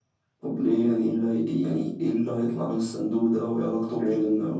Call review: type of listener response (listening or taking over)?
taking over